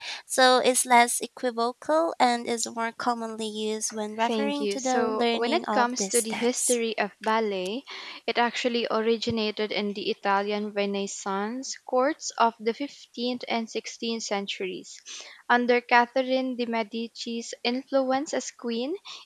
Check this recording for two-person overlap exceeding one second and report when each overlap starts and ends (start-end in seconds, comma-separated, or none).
4.2-6.8